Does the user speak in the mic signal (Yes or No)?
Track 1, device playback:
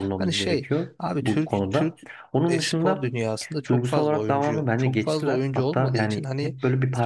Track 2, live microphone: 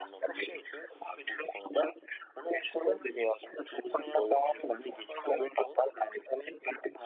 No